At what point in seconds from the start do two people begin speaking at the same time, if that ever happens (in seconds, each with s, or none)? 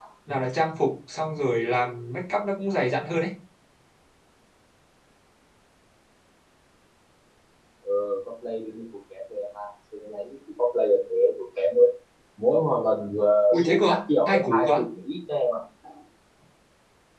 13.5 s